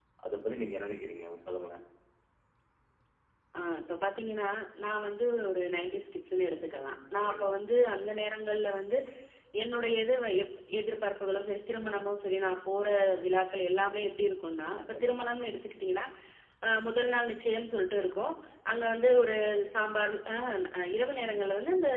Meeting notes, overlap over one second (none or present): none